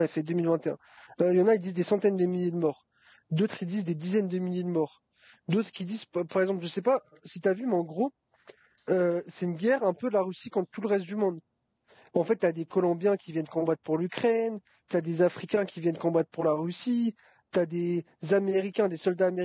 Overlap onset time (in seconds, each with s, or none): none